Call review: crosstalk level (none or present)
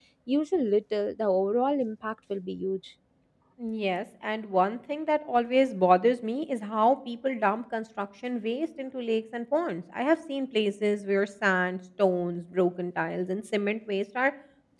none